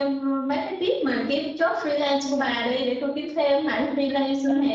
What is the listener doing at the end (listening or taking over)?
taking over